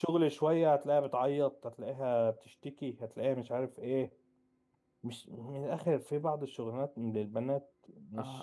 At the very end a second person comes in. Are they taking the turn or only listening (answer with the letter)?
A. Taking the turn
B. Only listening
A